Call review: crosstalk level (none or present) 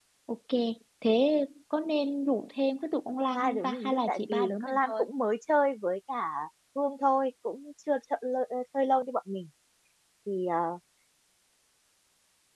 present